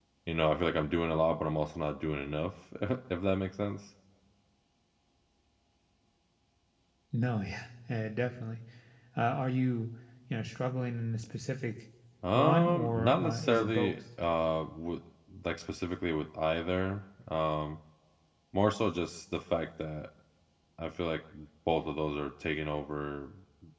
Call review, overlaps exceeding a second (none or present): present